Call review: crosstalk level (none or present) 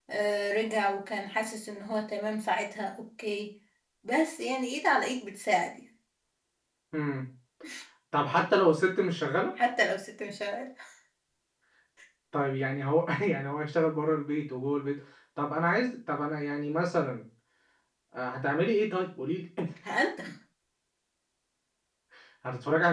none